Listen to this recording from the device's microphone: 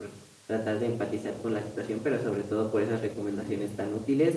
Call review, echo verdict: none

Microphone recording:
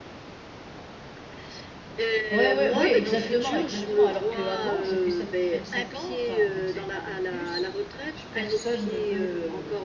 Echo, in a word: present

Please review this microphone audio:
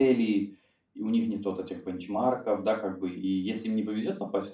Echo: none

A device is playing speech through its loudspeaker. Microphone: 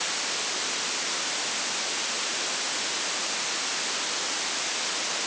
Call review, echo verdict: none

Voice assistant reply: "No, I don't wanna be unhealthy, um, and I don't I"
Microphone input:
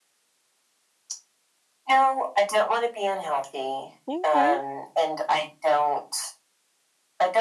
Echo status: present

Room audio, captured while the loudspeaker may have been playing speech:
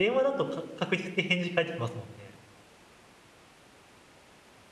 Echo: none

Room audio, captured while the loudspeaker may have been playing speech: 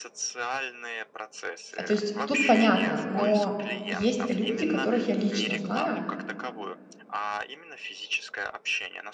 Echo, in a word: present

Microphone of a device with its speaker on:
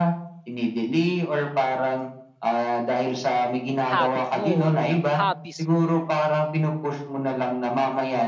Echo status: present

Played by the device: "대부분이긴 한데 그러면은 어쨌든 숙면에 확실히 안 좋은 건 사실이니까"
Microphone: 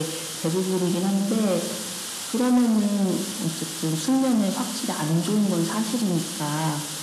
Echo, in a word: present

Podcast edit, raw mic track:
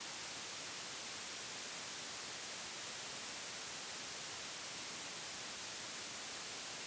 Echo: none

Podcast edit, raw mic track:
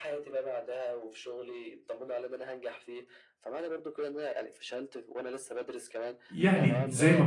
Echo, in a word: present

